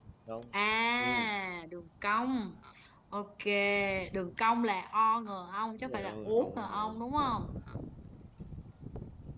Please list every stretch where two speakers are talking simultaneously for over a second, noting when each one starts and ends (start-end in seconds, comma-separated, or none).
5.8-7.1